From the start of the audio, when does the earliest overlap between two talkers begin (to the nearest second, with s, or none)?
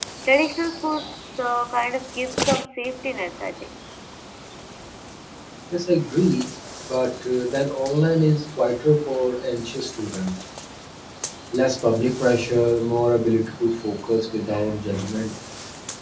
none